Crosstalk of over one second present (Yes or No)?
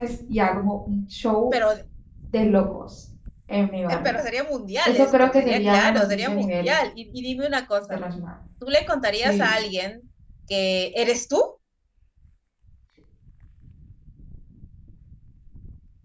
Yes